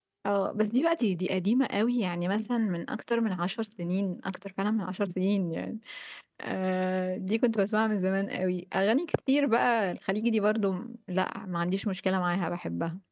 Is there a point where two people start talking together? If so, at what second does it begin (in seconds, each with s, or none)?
none